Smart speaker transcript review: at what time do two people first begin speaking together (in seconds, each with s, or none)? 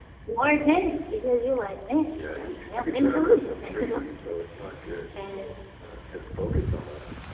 1.9 s